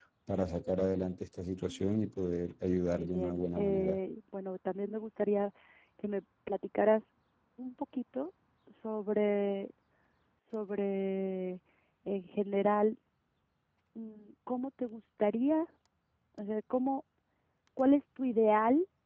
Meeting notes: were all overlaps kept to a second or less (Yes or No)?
No